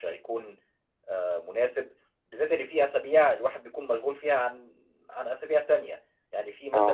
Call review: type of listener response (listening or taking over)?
listening